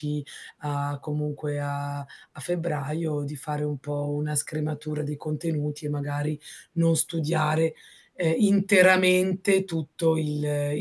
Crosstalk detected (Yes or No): No